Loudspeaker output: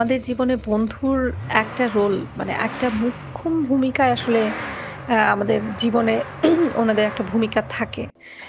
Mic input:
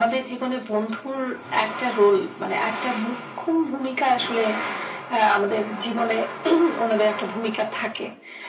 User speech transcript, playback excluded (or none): none